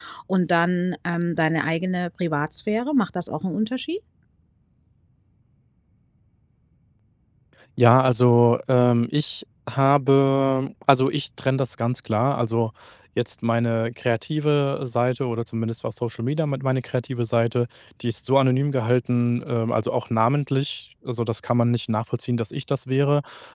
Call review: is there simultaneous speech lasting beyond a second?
No

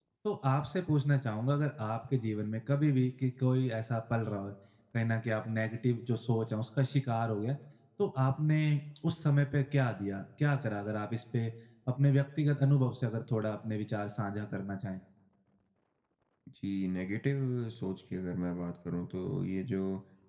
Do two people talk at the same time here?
No

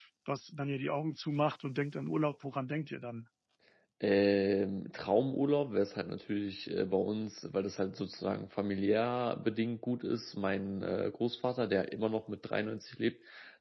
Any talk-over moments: No

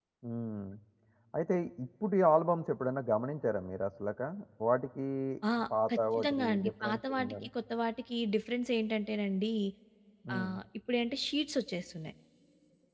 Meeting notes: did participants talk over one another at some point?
Yes, from 5.9 s

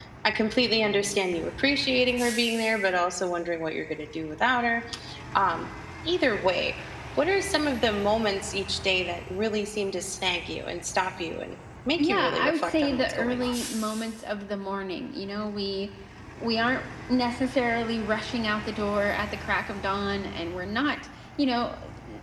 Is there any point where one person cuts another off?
Yes, from 12.0 s

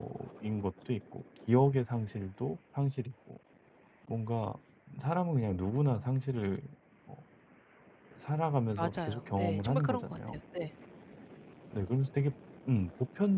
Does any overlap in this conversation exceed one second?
Yes, from 8.8 s

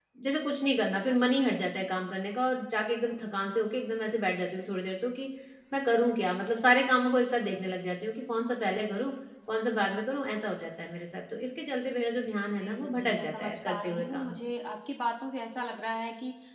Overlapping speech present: Yes, from 12.5 s

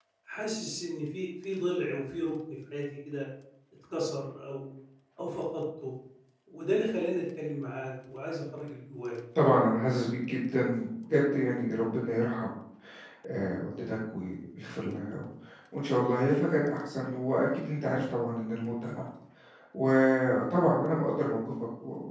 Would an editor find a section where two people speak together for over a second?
No

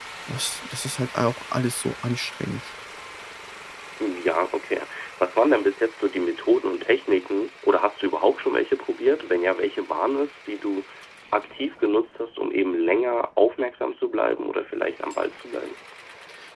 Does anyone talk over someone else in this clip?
No

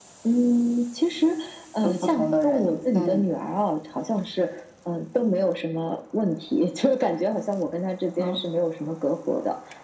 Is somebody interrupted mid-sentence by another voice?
Yes, from 1.8 s

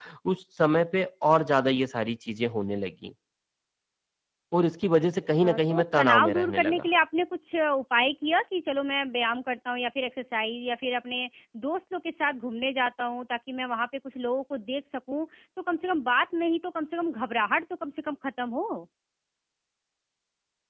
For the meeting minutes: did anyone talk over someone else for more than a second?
Yes, from 5.3 s

